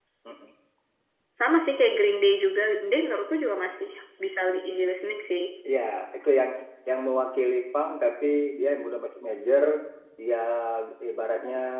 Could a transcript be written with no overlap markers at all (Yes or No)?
Yes